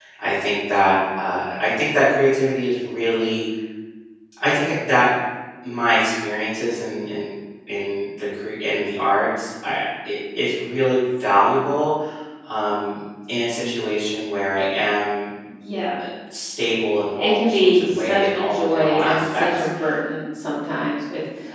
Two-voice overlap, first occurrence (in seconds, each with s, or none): 17.2 s